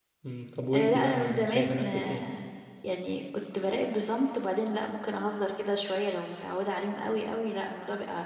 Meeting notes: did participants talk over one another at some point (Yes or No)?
Yes